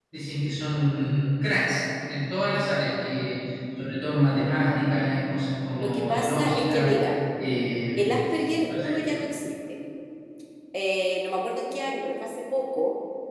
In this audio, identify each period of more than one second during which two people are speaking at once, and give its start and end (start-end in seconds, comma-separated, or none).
5.7-7.0